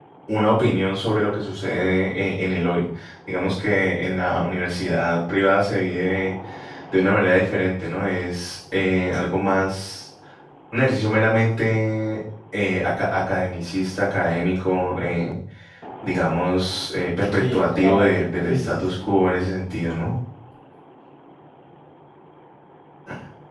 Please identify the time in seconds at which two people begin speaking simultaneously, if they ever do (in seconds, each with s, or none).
17.4 s